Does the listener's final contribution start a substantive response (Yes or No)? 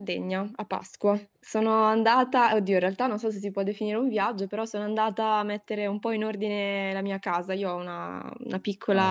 No